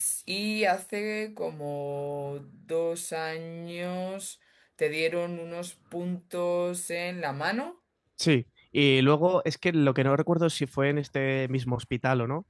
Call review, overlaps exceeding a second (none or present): none